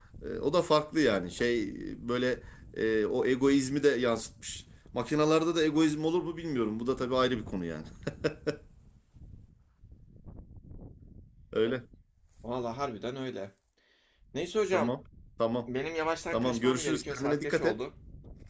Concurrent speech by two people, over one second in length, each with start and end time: 16.3-17.8

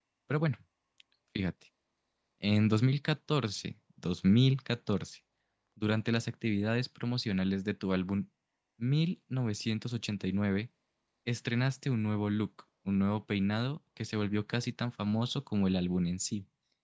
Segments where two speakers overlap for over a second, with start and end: none

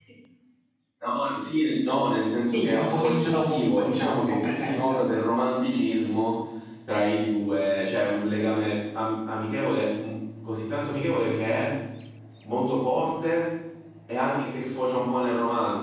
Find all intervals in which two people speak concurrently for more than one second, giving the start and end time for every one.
2.5-5.0

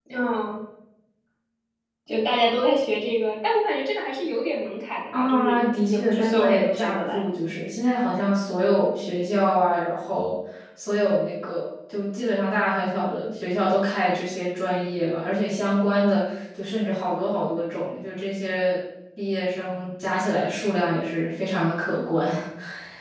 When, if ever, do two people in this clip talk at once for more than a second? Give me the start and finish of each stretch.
5.1-7.2

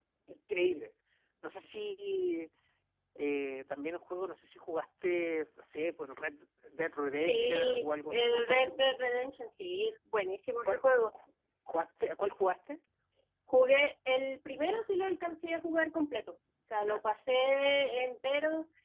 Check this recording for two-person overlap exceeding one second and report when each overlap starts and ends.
7.2-8.7

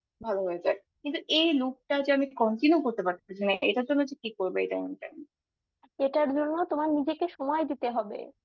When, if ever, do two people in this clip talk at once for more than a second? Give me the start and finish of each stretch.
none

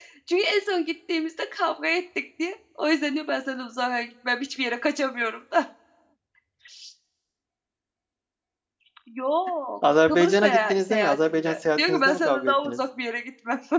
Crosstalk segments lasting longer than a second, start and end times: 10.1-12.8

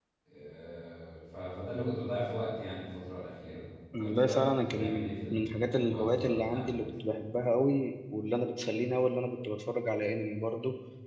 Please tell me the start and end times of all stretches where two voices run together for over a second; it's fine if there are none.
4.0-6.7

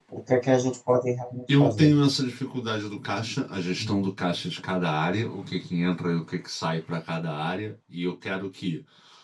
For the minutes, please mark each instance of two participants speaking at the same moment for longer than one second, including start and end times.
none

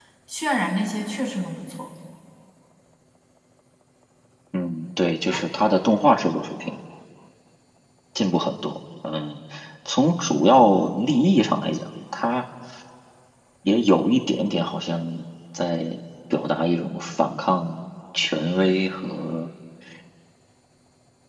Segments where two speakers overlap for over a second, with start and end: none

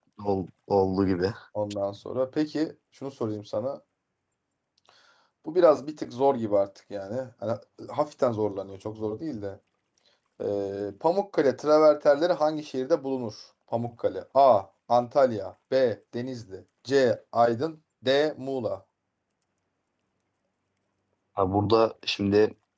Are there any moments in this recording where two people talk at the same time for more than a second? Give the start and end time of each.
none

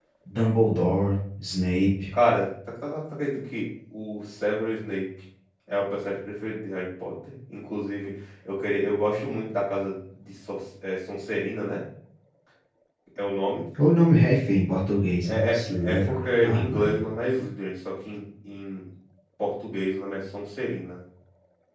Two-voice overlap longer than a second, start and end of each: 15.2-17.0

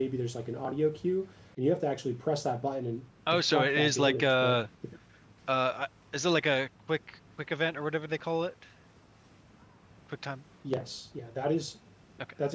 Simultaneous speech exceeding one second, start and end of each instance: 3.3-4.6

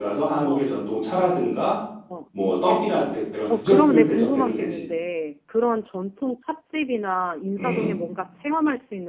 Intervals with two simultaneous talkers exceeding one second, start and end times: 3.5-4.8

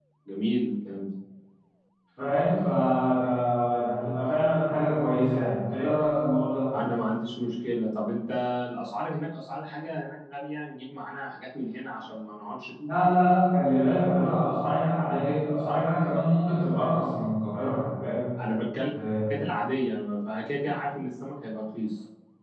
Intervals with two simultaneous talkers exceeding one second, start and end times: none

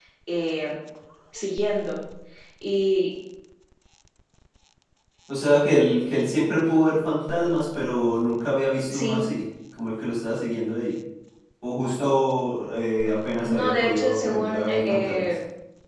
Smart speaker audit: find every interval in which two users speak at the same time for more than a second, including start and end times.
13.4-15.3

